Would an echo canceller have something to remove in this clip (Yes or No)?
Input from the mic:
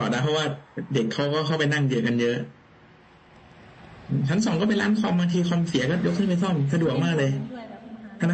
Yes